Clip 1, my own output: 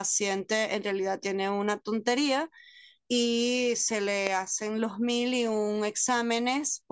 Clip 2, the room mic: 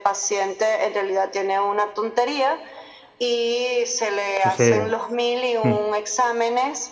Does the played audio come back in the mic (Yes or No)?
Yes